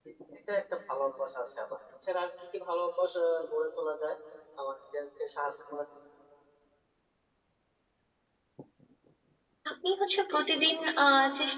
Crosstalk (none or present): none